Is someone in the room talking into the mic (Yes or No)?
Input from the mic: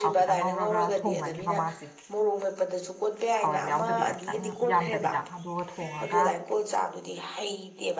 Yes